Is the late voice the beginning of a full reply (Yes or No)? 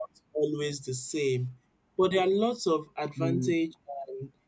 No